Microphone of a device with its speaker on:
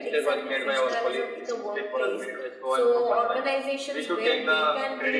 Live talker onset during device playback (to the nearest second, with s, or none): none